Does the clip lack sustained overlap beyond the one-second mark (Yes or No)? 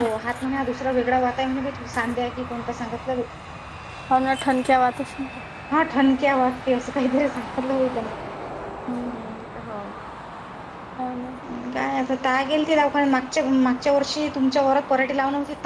Yes